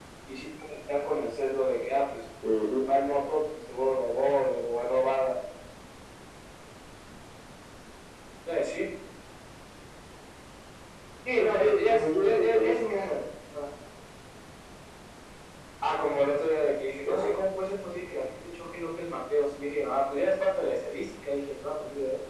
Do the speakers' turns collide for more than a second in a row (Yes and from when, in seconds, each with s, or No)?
Yes, from 11.4 s